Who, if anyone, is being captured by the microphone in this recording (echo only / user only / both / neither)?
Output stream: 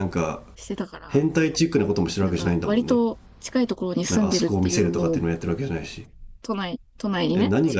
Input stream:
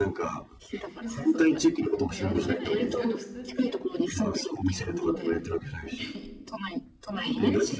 both